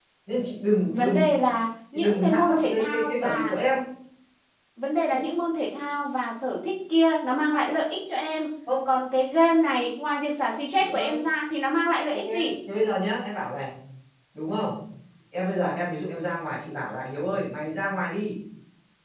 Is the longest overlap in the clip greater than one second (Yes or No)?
Yes